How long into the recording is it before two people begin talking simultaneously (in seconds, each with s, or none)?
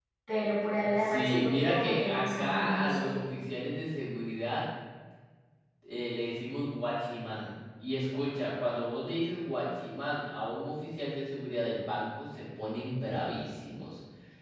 1.0 s